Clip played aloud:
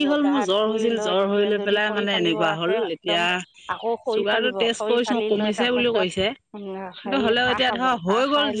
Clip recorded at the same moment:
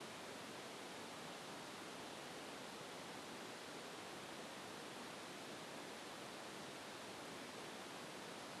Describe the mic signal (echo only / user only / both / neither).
neither